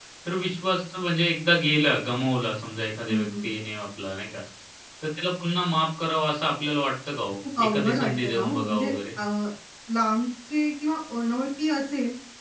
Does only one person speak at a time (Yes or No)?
No